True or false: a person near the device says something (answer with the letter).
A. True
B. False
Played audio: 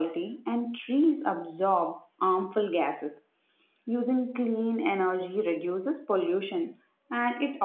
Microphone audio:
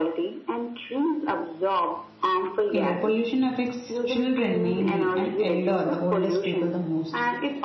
A